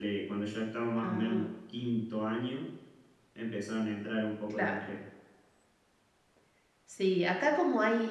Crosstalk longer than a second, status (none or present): none